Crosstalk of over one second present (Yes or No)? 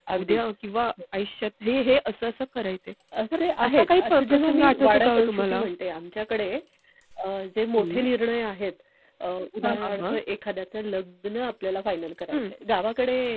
Yes